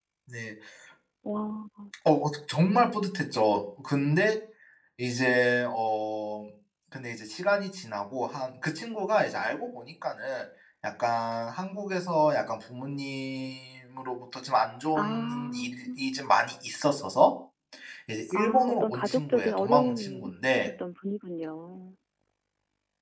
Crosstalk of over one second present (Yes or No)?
Yes